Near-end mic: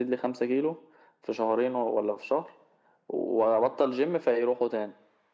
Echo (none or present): present